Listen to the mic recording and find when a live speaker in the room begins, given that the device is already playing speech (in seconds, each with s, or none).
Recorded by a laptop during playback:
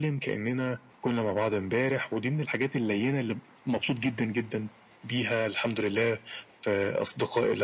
none